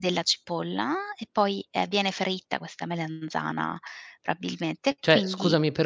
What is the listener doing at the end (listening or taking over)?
taking over